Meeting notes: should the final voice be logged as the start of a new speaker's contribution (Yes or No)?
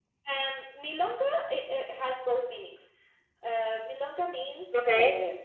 No